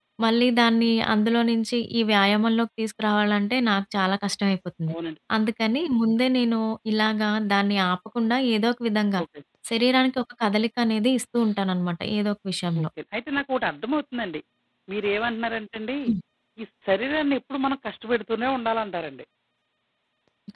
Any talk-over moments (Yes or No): No